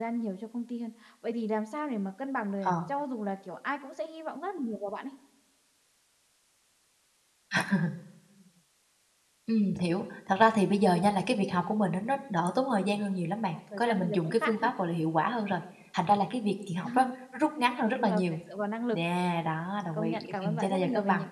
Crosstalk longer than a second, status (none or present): present